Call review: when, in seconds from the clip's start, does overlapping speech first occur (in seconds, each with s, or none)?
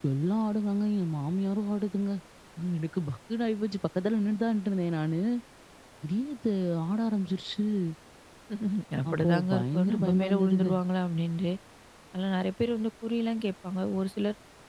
9.1 s